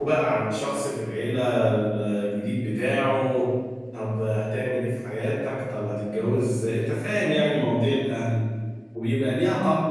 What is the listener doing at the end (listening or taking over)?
listening